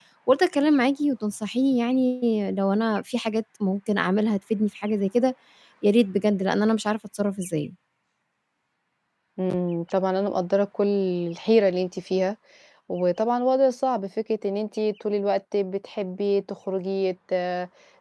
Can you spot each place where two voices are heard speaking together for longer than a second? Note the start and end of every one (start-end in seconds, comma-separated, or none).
none